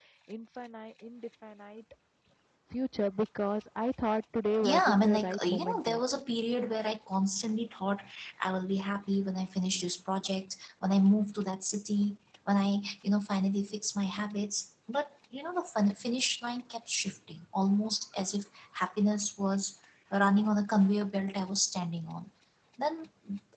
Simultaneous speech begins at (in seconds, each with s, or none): 4.6 s